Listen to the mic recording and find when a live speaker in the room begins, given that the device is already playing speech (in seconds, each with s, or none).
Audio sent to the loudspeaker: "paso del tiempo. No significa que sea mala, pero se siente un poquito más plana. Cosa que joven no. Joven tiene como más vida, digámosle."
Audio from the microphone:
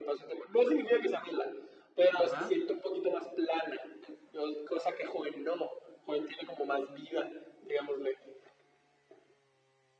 2.2 s